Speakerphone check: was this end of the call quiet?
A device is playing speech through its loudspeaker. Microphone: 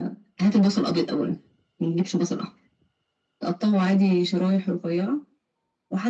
Yes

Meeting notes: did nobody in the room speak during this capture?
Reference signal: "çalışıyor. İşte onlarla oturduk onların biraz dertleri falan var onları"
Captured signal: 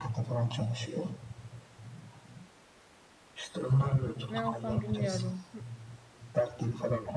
No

